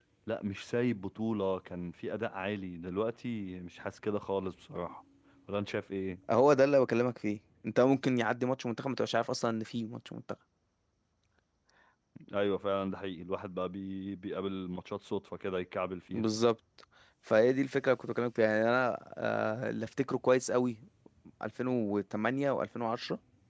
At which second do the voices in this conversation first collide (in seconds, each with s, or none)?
none